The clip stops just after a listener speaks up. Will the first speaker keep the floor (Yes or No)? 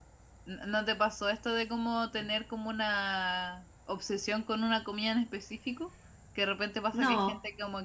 Yes